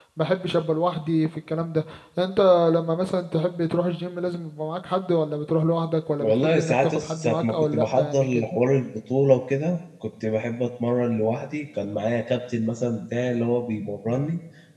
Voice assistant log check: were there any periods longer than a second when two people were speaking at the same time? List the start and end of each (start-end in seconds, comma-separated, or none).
6.2-8.3